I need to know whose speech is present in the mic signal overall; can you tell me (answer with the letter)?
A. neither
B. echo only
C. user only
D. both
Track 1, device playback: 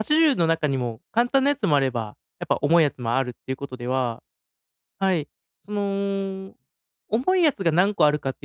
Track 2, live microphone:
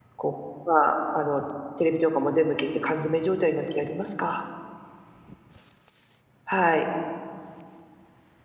C